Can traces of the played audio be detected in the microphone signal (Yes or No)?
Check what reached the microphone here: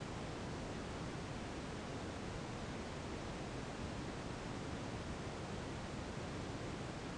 No